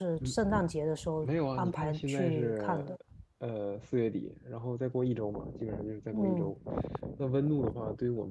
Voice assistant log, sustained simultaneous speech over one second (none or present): present